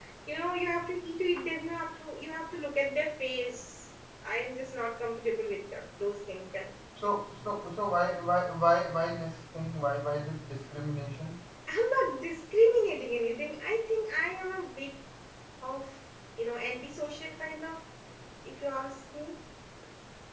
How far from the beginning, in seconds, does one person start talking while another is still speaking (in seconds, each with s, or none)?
none